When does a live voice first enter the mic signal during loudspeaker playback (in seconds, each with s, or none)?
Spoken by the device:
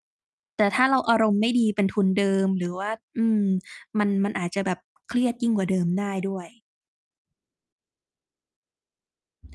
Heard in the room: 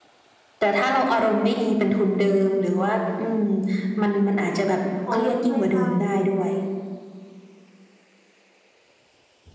5.1 s